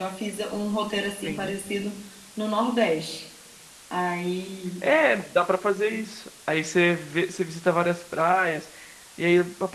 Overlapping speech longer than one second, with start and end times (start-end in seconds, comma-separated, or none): none